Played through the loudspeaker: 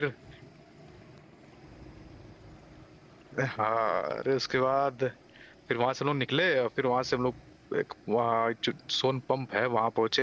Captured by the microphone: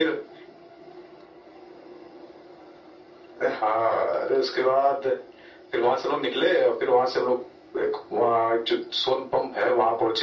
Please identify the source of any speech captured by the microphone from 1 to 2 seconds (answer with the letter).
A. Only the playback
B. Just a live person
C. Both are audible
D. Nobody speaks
D